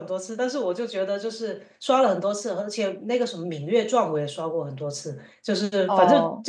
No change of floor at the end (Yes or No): Yes